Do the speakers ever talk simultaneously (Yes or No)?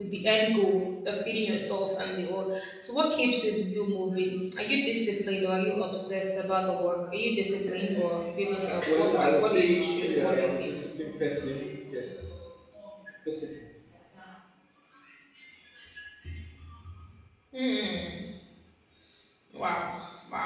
Yes